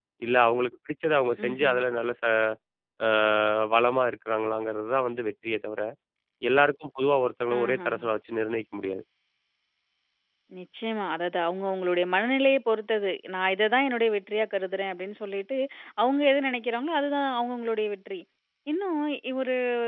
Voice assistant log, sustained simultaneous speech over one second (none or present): none